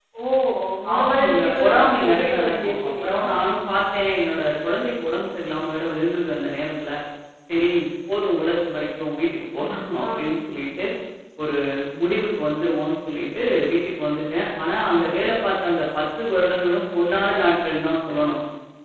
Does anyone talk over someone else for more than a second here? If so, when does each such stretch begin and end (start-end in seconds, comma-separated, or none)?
1.0-3.2